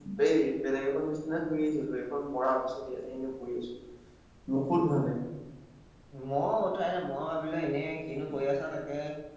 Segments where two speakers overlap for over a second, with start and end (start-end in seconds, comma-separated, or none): none